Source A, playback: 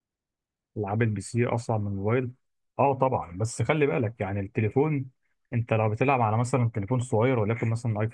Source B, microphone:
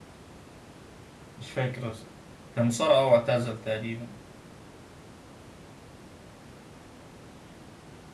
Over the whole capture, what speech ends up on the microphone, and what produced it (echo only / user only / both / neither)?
user only